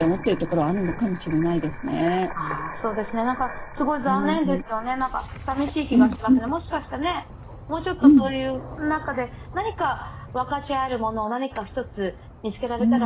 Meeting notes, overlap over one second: none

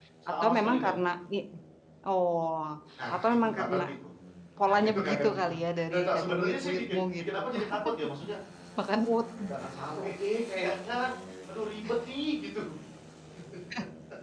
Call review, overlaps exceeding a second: present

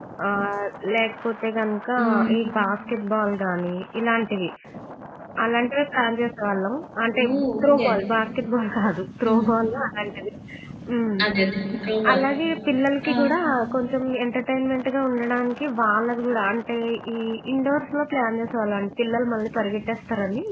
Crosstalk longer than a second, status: none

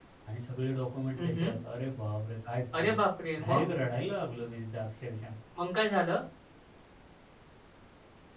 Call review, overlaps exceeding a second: none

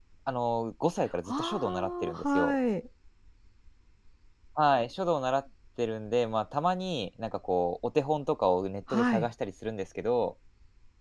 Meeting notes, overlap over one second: present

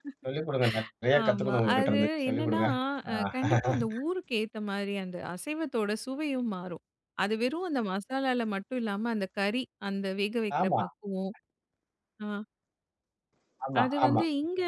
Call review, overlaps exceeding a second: present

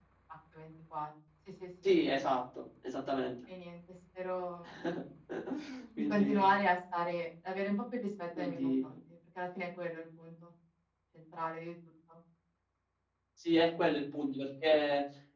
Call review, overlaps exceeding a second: none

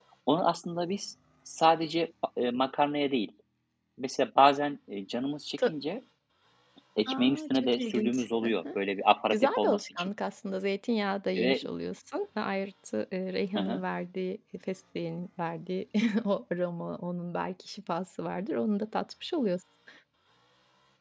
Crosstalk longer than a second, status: present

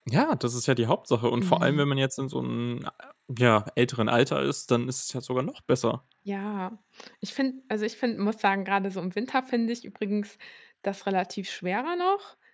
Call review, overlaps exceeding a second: none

